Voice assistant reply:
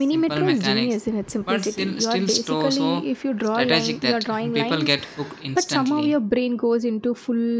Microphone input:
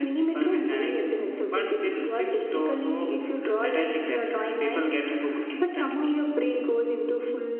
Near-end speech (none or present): none